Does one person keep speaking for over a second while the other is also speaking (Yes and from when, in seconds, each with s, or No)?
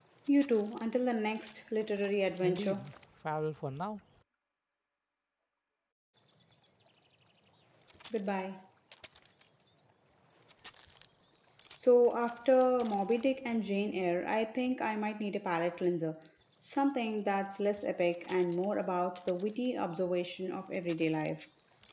No